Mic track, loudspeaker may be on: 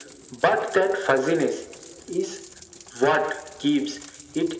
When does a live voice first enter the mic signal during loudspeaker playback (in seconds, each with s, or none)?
none